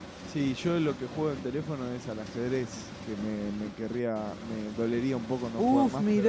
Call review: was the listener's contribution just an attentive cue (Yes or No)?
No